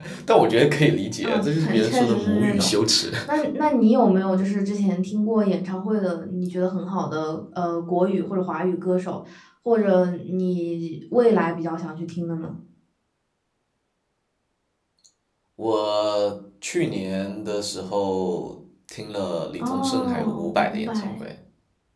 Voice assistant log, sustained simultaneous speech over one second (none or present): present